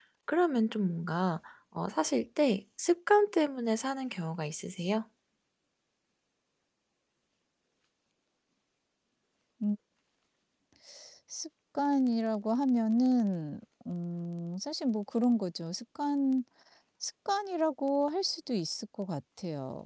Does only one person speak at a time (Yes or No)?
Yes